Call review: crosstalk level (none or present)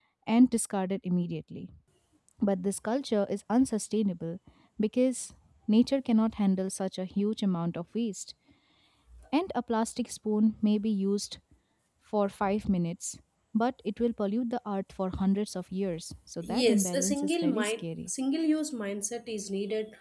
present